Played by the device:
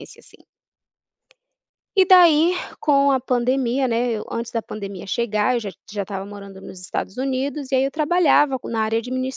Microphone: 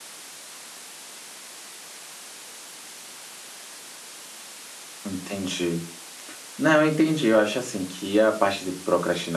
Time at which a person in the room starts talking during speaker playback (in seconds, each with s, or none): 5.0 s